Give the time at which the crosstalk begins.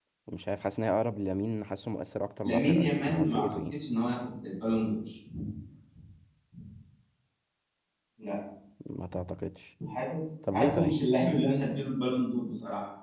2.4 s

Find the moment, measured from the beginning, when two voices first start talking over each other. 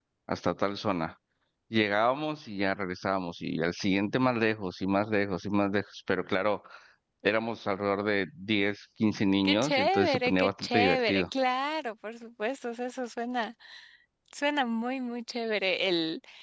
9.4 s

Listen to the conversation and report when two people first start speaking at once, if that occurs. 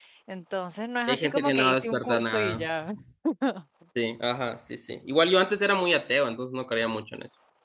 1.1 s

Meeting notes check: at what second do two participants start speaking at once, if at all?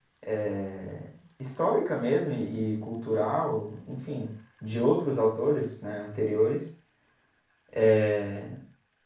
none

